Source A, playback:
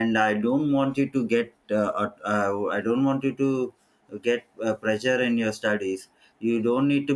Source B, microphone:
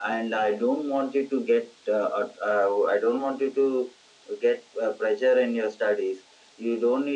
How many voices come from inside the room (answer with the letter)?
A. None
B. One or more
A